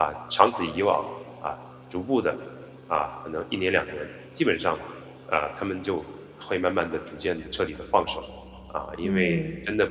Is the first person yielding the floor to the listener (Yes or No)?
No